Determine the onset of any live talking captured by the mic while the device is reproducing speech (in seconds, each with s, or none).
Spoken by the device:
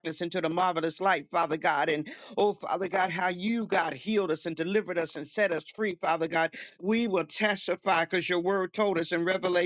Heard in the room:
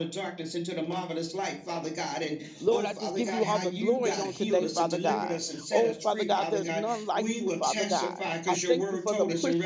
2.6 s